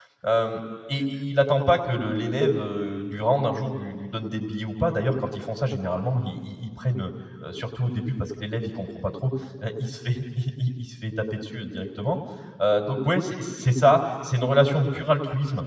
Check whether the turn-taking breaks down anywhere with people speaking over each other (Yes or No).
No